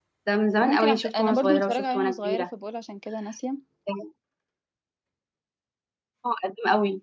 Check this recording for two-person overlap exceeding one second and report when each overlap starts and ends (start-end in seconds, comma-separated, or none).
0.6-2.5